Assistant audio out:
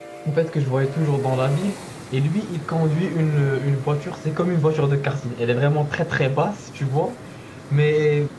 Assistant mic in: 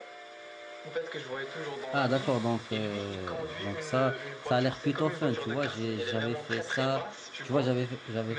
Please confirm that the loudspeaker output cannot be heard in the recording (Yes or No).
No